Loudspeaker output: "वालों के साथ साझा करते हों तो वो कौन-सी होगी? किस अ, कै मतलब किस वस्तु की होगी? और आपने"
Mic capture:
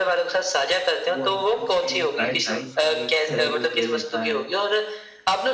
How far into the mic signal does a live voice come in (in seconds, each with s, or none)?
1.1 s